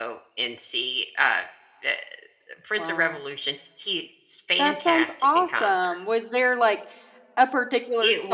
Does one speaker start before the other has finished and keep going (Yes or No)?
Yes